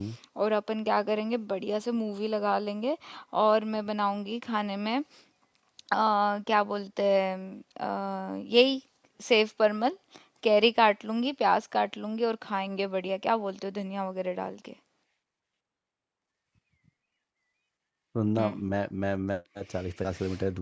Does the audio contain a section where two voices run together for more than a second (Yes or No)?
No